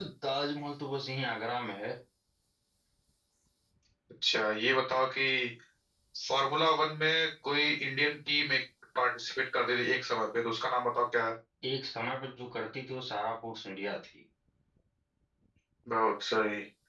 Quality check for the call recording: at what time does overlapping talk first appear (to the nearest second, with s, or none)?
none